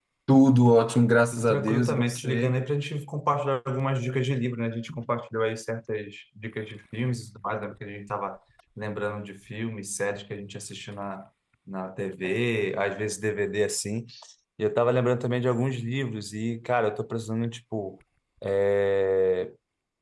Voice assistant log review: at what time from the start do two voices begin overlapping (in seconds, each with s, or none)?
1.3 s